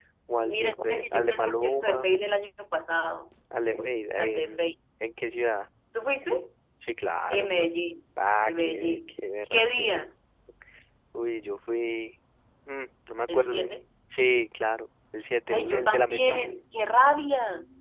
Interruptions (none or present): present